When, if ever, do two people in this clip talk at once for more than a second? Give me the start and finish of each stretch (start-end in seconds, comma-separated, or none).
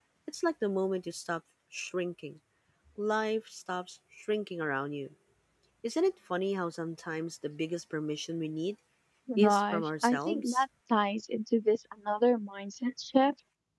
9.4-10.6